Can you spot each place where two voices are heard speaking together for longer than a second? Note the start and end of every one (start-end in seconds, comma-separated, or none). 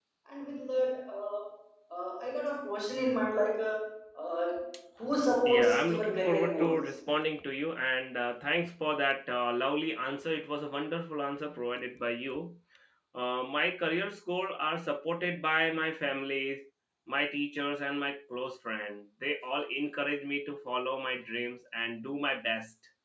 5.5-6.8